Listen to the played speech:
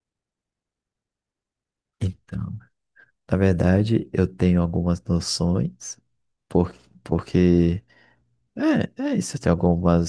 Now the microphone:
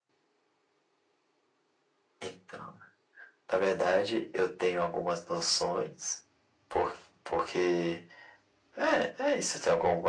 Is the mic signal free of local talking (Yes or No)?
Yes